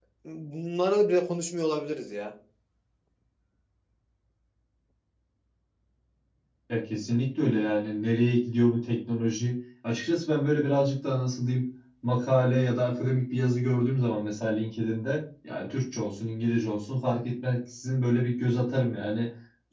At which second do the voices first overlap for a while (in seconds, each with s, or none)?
none